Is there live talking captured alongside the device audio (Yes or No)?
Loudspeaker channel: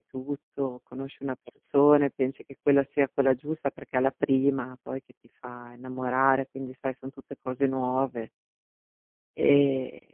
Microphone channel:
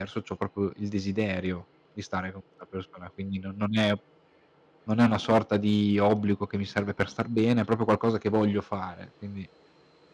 Yes